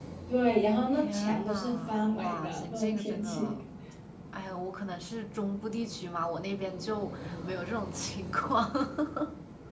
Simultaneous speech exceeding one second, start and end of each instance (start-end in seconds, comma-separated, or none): 0.9-3.6